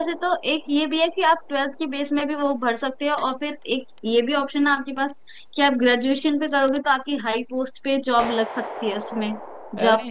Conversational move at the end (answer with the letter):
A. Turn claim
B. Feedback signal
A